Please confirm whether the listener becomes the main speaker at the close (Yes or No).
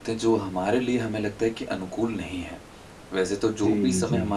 No